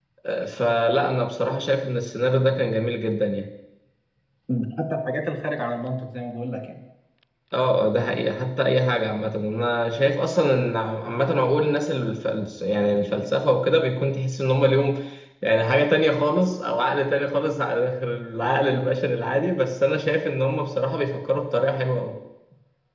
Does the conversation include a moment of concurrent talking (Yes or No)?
No